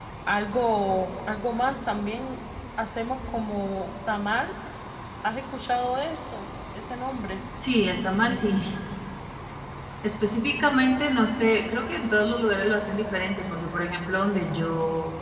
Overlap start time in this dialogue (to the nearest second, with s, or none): none